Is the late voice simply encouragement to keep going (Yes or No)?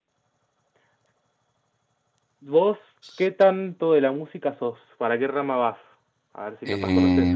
No